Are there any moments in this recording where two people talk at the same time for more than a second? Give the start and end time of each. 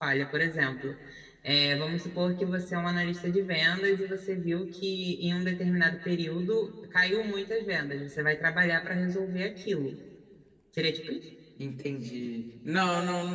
none

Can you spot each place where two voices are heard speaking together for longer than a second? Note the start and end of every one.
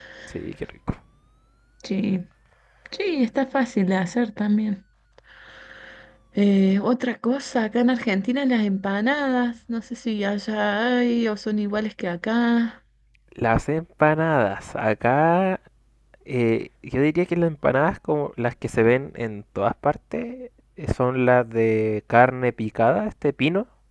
none

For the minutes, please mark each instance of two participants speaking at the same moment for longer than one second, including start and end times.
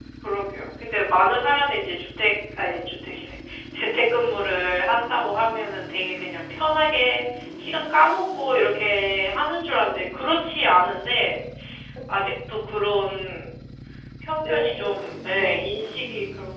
14.4-15.7

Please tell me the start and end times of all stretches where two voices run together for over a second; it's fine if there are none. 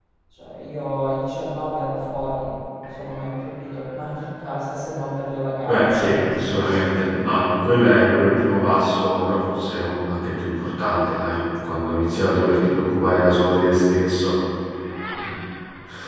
5.7-7.1

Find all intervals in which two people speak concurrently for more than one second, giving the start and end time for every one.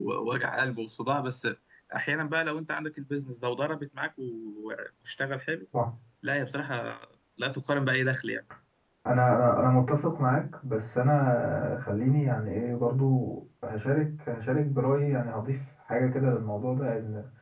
none

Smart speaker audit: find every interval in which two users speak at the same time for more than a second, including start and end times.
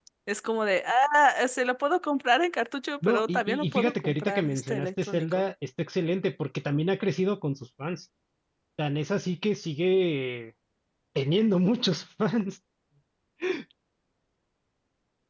3.1-5.4

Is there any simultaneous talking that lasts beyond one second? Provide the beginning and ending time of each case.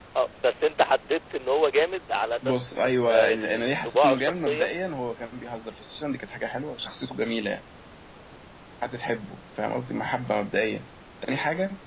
2.4-4.7

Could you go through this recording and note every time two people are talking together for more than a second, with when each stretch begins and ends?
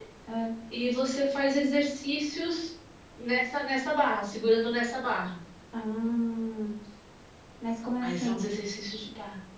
none

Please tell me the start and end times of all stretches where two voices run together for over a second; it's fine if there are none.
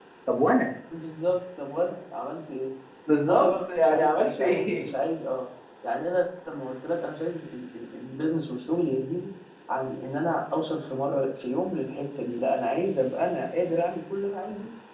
3.2-4.9

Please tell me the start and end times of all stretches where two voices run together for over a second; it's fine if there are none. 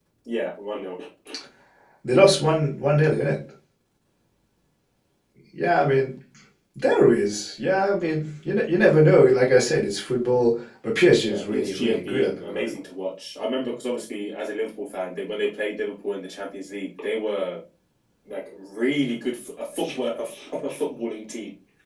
11.2-12.7

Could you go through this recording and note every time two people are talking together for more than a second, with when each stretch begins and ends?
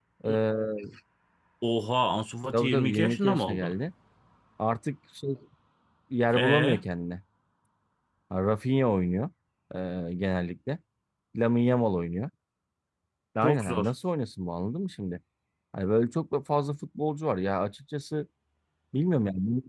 2.5-3.8

